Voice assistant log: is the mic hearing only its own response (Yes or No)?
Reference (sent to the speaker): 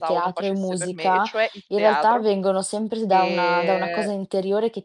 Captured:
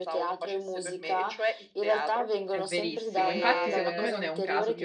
No